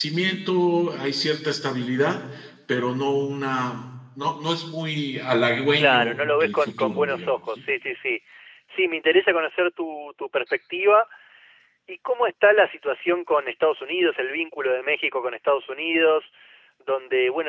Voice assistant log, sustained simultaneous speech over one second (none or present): present